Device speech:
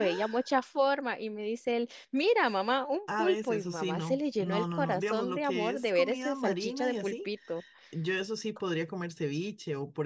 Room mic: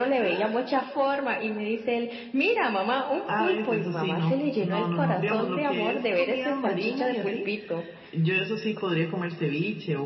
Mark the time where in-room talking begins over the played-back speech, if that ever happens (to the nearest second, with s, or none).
none